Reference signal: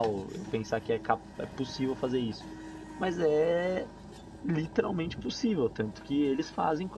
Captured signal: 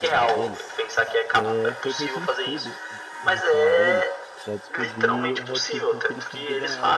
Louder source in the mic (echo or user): echo